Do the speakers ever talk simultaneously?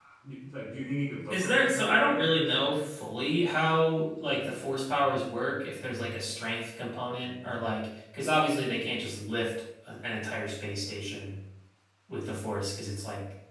Yes, from 1.3 s

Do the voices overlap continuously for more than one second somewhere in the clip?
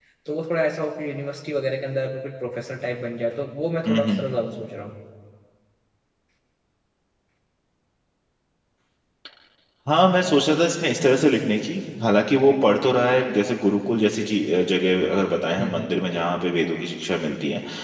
No

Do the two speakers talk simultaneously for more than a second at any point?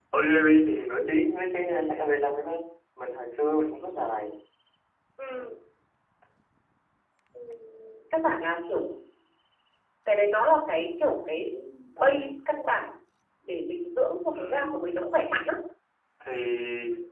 No

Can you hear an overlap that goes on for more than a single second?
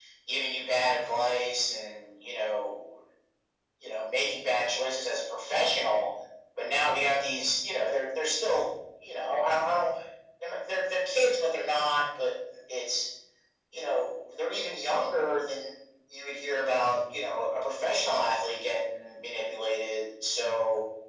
No

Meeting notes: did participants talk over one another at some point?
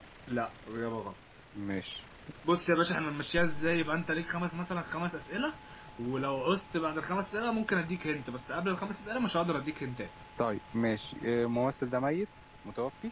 No

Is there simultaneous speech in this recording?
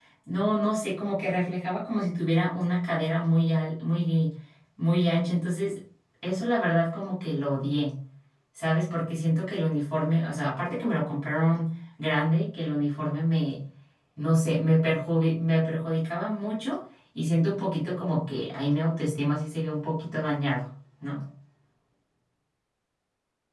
No

